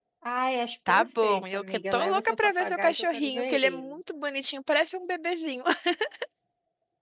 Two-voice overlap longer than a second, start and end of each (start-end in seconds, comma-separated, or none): 0.9-3.9